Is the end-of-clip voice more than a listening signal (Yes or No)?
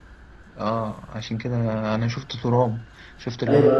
Yes